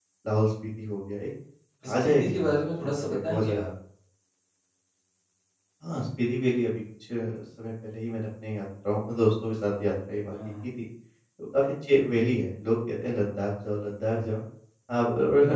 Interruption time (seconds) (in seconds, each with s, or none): 2.0 s